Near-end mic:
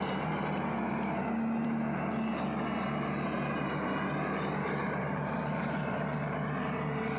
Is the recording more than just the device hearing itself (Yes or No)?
No